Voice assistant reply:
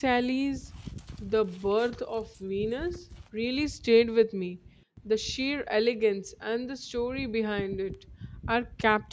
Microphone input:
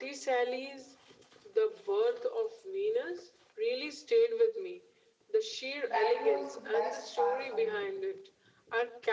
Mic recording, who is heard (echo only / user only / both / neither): both